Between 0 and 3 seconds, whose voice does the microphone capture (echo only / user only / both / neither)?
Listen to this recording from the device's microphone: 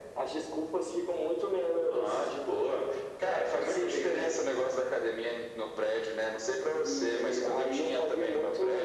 echo only